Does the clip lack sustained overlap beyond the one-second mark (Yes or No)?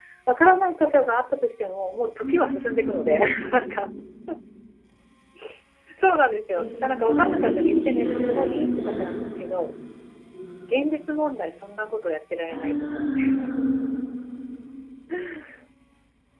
No